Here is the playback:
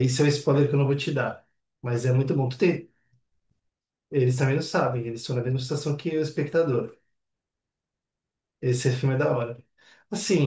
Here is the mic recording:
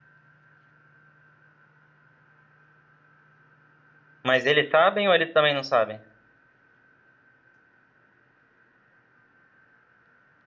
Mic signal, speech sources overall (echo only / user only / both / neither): user only